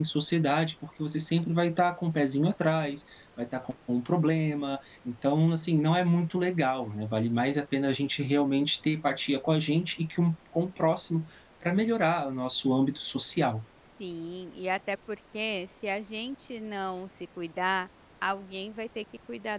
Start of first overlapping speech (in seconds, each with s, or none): none